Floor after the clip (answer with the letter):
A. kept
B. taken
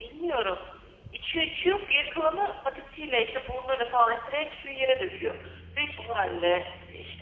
A